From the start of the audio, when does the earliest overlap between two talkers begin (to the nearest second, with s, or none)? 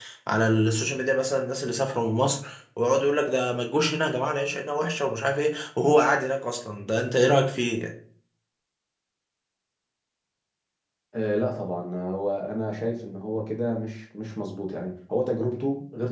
none